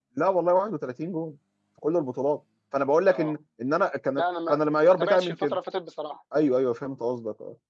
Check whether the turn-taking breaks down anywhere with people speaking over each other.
Yes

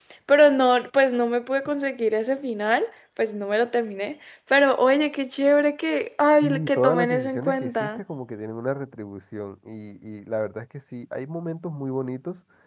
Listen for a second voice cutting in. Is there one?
Yes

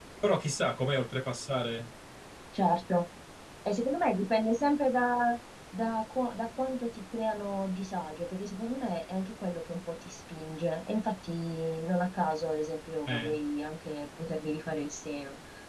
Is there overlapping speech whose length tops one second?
No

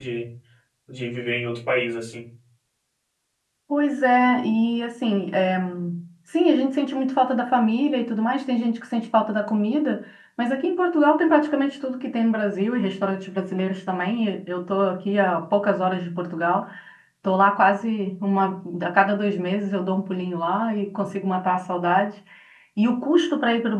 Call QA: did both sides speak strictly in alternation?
Yes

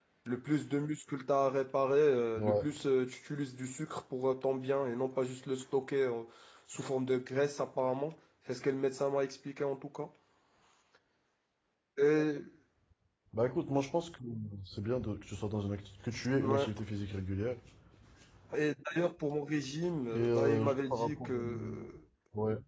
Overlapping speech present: Yes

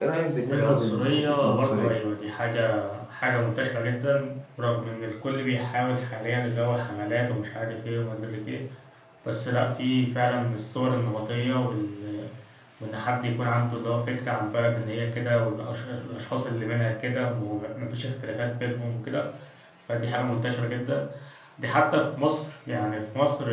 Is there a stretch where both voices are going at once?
Yes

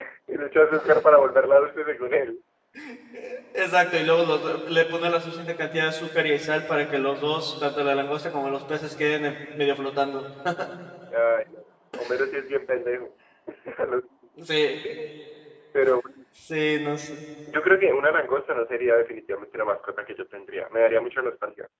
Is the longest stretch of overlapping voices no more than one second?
Yes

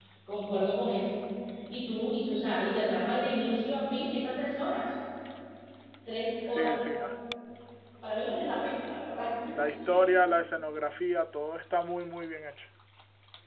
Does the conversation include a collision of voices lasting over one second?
No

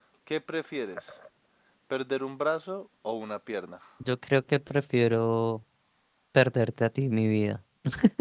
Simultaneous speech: No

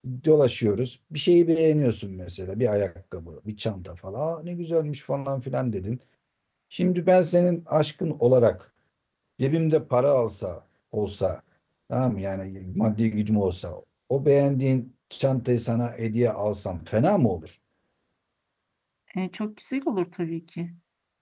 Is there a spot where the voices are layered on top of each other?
No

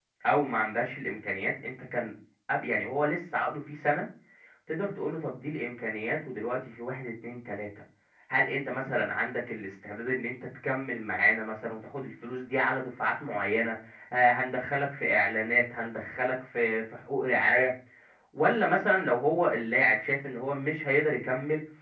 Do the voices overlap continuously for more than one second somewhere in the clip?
No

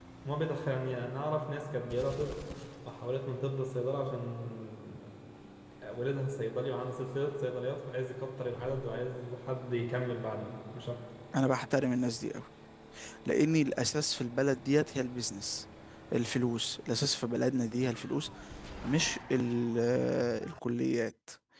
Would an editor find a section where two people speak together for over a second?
No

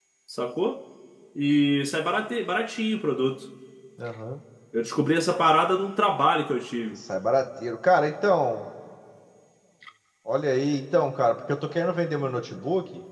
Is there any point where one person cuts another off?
No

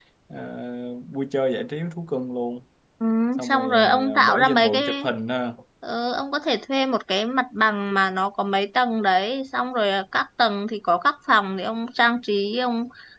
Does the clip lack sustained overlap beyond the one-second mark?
No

